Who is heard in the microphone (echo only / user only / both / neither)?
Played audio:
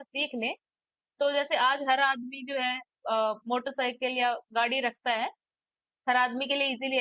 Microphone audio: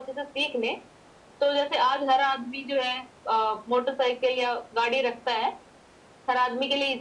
echo only